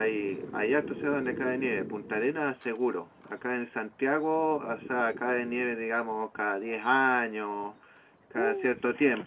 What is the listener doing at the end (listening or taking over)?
listening